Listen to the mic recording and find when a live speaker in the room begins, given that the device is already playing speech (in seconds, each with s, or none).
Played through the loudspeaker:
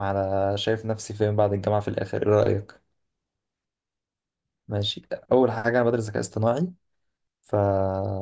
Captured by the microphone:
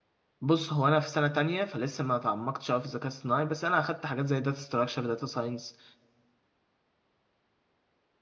0.4 s